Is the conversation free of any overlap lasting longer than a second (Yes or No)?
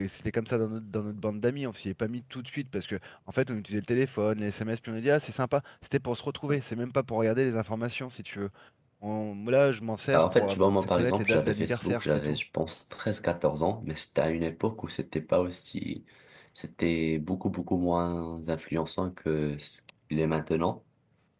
No